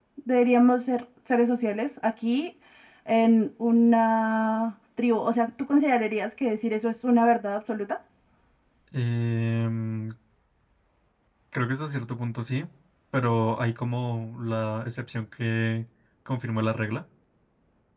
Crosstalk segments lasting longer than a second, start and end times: none

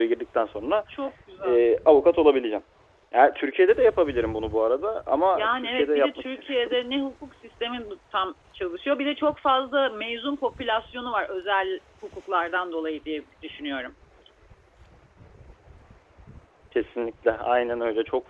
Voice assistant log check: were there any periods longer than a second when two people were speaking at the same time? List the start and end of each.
5.3-6.8

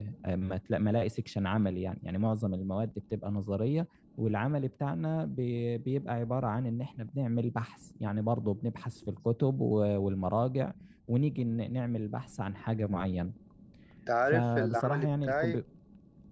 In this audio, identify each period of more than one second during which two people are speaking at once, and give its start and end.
14.3-15.6

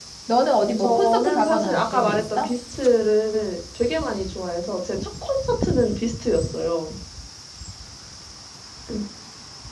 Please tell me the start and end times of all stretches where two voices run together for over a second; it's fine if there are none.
0.8-2.5

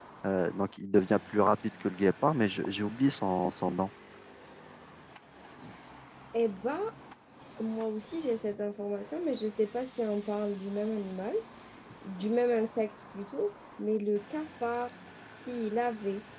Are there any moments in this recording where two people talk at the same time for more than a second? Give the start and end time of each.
none

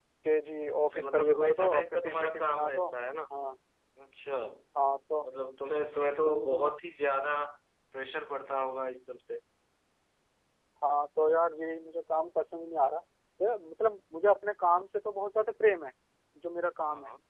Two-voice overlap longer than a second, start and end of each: 0.9-2.9

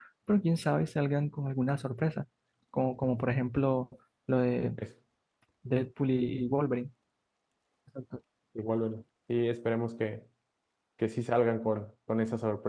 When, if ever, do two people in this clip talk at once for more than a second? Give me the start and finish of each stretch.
none

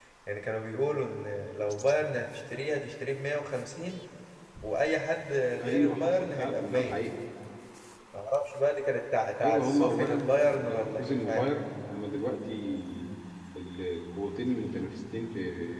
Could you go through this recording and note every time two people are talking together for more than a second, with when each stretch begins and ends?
5.6-7.0, 9.4-11.4

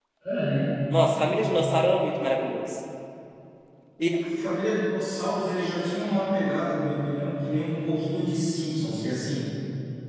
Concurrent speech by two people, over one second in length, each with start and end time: none

